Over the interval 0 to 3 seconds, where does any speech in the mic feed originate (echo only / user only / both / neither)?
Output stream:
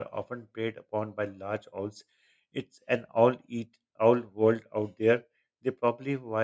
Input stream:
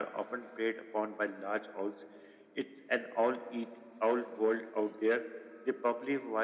echo only